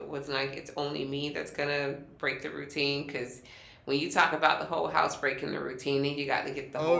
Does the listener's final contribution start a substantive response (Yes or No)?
No